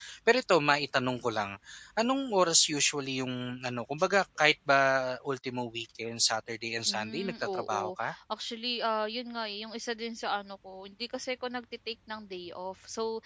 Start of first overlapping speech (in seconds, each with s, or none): 6.9 s